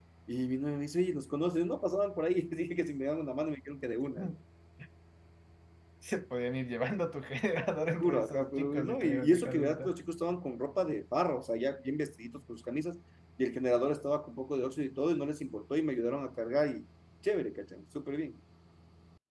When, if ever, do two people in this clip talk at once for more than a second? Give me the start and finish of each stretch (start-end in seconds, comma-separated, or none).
8.0-9.6